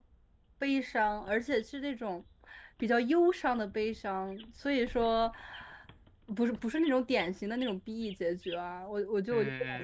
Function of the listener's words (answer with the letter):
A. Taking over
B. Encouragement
A